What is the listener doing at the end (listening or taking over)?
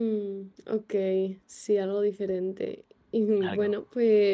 listening